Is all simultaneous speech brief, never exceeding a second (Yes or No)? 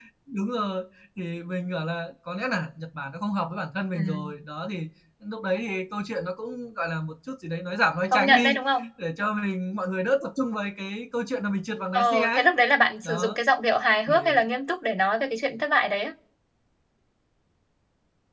Yes